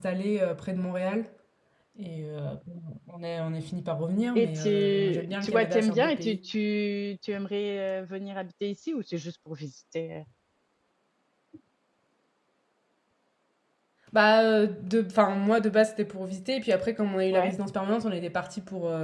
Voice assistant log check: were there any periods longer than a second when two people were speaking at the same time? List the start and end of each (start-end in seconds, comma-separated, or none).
4.3-6.4